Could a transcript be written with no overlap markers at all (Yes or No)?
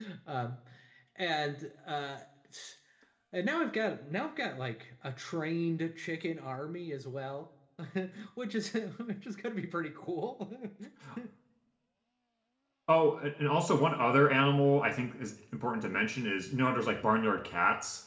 Yes